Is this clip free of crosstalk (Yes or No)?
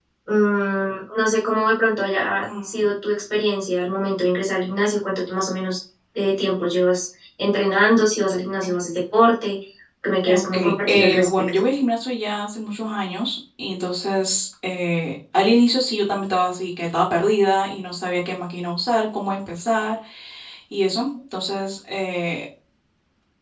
No